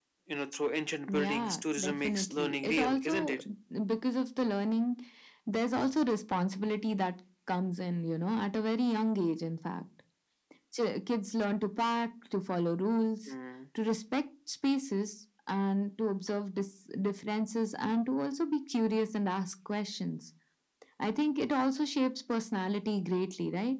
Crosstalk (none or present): present